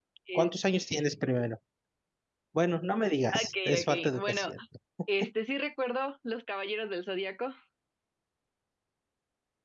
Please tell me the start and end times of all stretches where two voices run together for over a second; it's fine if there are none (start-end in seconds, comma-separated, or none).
3.3-4.5